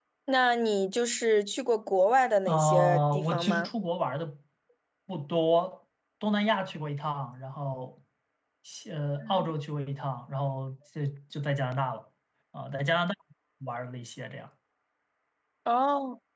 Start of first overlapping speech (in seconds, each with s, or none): 2.5 s